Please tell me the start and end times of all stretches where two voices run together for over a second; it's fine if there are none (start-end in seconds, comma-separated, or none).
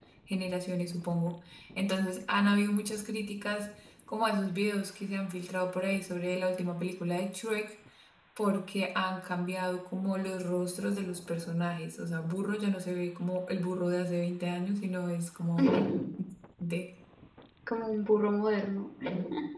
none